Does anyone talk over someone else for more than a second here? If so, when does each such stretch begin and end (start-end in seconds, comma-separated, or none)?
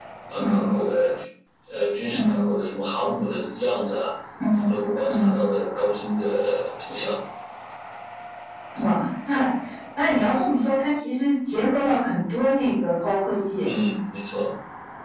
none